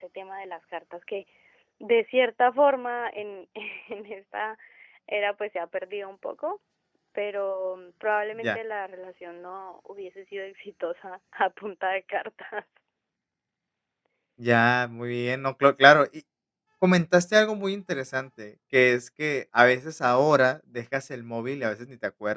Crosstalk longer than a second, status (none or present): none